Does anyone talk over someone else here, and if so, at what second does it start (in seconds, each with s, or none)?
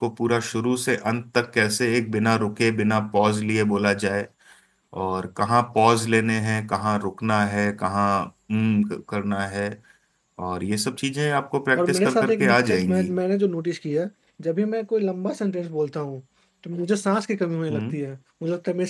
11.8 s